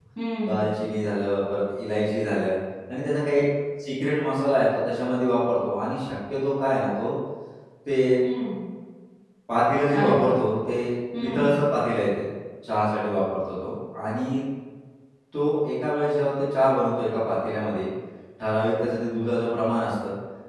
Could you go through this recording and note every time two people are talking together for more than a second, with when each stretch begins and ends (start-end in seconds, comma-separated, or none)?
none